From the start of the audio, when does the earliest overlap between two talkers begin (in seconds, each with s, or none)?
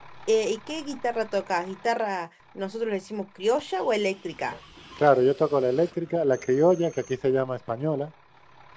none